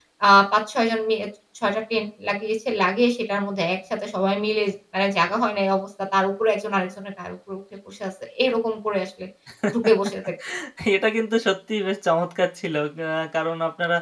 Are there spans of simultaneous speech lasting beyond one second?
No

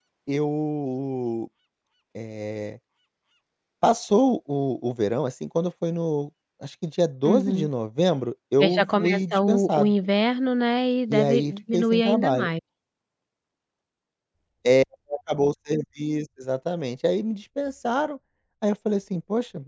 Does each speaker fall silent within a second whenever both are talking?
No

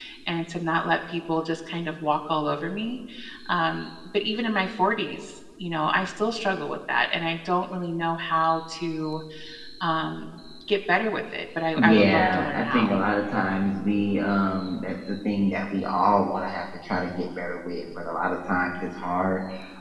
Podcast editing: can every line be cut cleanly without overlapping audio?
No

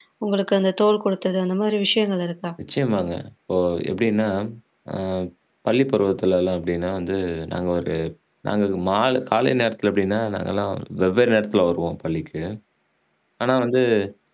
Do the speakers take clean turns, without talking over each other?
Yes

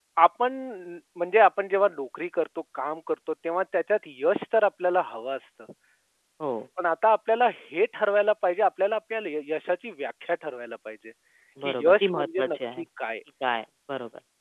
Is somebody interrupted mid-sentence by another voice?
Yes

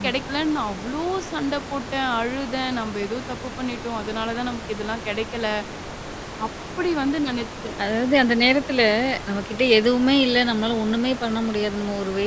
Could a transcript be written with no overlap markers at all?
Yes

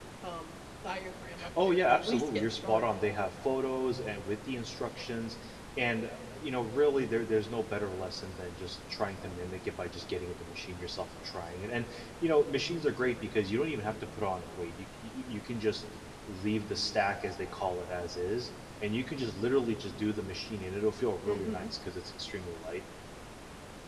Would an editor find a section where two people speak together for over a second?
Yes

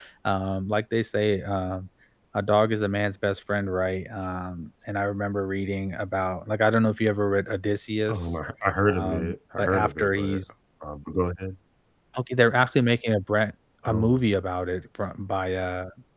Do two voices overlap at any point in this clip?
Yes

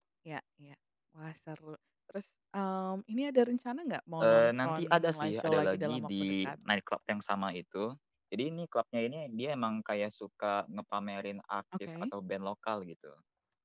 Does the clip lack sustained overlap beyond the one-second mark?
No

